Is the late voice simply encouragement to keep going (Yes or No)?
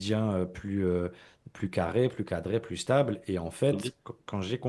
Yes